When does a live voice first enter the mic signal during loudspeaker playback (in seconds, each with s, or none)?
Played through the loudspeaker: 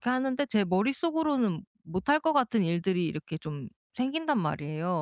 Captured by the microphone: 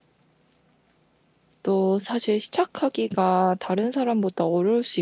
1.6 s